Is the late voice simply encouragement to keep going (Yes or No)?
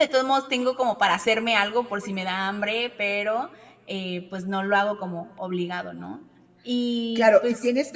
No